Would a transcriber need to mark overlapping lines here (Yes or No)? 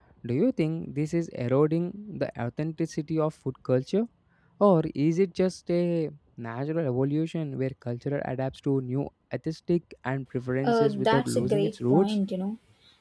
Yes